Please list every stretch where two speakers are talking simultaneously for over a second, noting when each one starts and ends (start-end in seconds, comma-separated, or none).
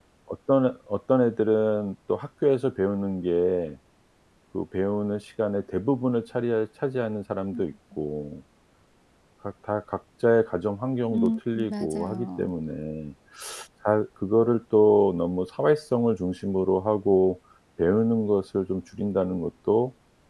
11.1-12.5